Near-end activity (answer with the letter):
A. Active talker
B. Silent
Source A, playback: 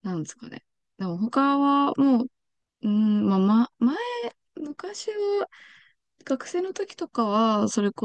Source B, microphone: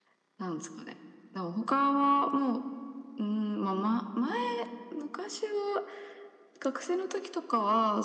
B